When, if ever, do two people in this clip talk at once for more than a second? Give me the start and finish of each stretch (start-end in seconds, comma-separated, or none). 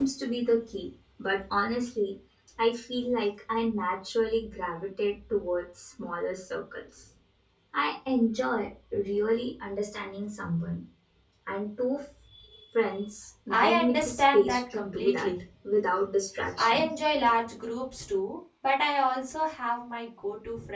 13.5-15.3